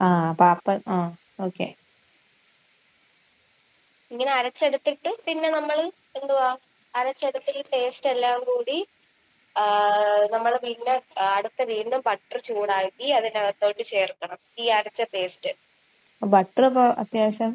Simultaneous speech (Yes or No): No